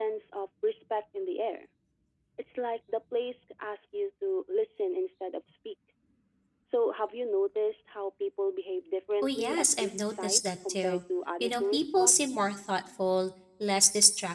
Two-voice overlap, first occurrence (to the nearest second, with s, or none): 9 s